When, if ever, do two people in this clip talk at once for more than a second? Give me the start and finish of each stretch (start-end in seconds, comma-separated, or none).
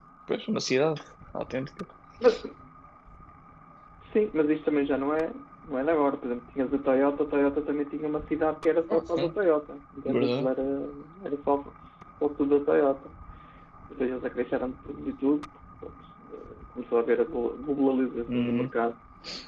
none